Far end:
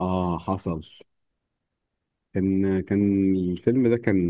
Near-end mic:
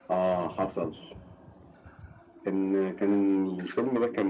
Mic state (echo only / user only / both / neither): echo only